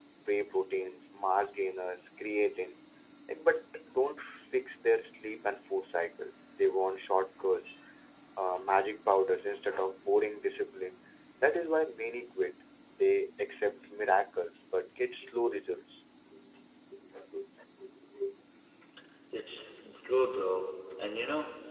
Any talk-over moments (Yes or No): No